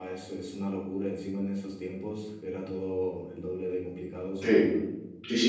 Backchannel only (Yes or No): No